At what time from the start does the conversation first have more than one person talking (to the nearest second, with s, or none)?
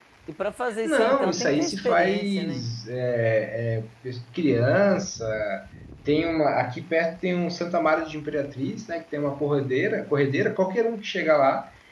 1 s